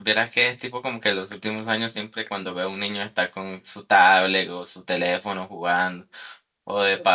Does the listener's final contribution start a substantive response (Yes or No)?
No